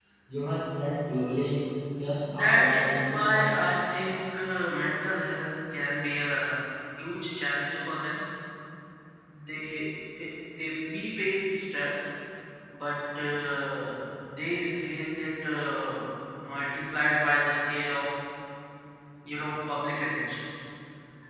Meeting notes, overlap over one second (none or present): present